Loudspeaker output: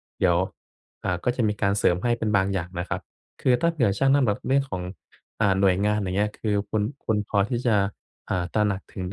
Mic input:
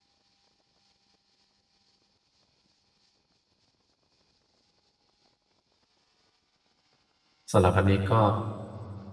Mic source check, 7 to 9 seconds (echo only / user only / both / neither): user only